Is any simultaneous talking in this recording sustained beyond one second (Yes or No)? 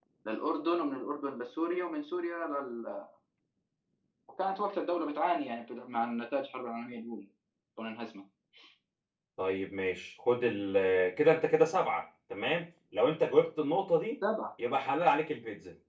No